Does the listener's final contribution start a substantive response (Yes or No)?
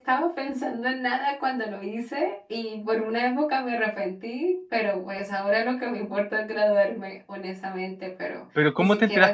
Yes